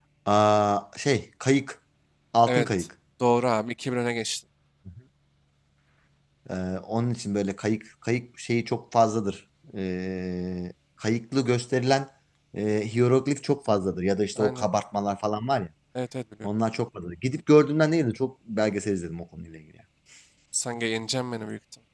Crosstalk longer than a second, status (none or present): none